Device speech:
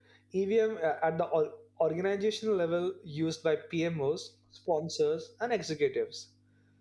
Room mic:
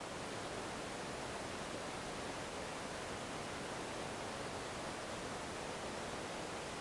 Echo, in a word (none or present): none